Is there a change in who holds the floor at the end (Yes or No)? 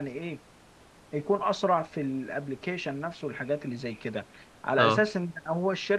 No